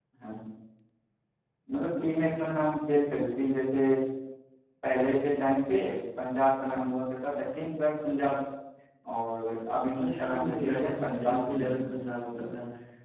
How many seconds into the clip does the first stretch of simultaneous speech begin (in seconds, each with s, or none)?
10.0 s